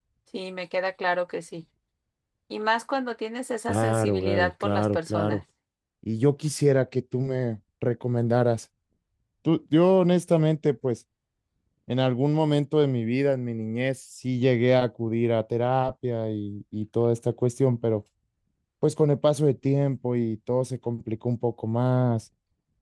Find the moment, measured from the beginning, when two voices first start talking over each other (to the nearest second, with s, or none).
4 s